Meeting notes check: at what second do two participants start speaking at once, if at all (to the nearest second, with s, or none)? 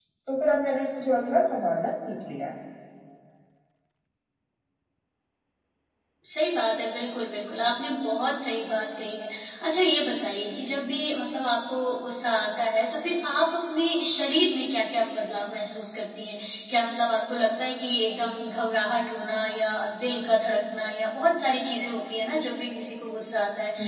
none